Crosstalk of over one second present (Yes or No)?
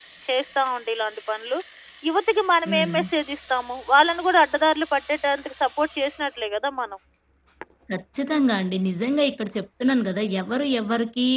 No